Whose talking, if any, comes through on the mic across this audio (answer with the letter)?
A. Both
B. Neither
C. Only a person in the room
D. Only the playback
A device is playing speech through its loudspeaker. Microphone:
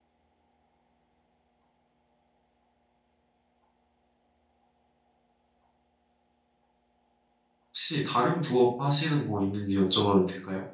C